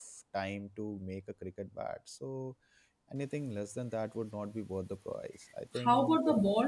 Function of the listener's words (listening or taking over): taking over